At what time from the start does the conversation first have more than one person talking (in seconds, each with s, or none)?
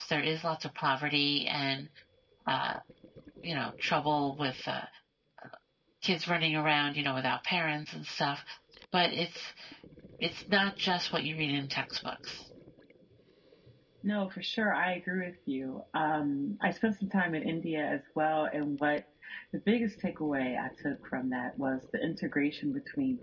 none